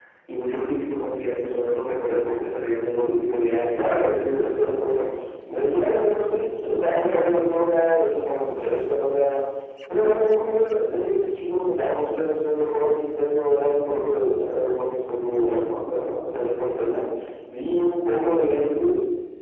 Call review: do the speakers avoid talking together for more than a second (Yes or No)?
Yes